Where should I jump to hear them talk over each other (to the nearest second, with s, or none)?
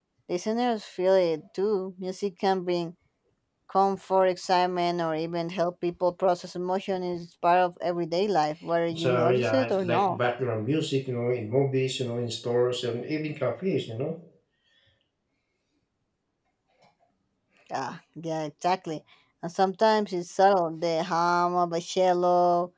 9 s